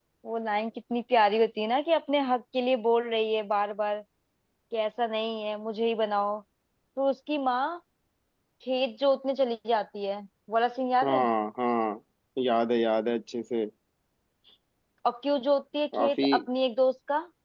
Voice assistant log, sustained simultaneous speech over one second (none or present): none